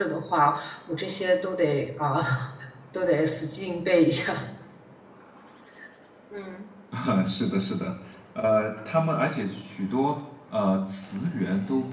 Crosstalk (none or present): none